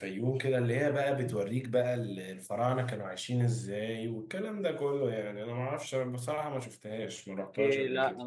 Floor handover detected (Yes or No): Yes